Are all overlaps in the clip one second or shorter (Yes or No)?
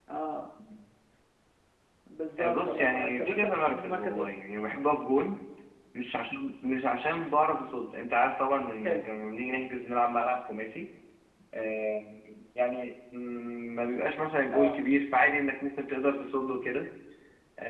No